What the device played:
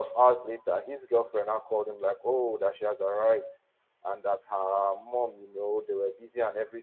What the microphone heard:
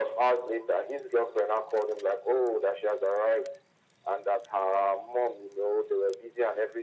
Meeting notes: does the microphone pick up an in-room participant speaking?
No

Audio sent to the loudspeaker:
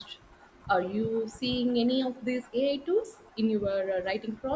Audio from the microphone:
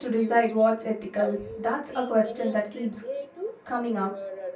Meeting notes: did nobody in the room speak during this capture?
No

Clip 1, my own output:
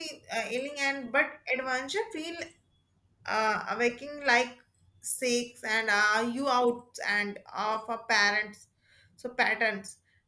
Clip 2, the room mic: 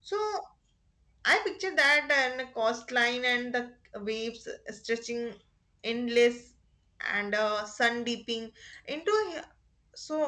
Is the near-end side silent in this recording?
No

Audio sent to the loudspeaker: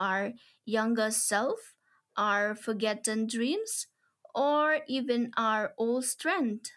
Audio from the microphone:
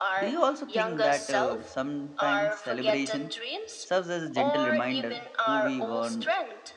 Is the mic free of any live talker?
No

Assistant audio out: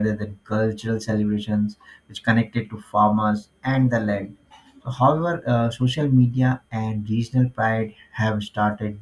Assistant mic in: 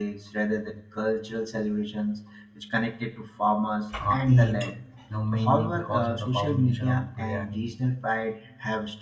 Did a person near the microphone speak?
Yes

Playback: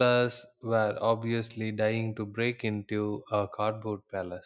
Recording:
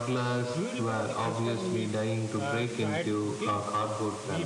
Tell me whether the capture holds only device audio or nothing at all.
No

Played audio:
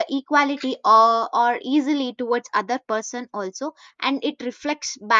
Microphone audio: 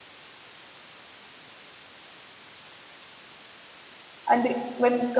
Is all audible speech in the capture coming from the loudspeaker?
No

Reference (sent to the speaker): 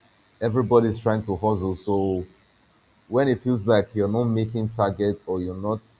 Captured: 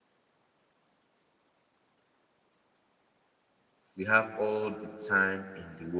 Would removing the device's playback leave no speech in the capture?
No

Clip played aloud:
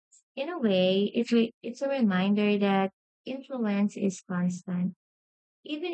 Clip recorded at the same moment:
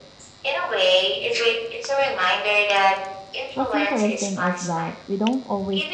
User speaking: Yes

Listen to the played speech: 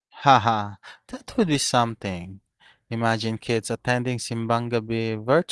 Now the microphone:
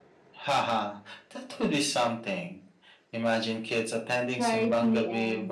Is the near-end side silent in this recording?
No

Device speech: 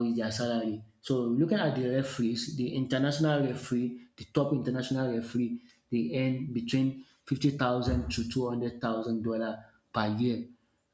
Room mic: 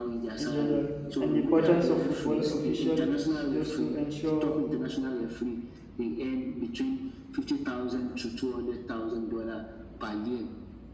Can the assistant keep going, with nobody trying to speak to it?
No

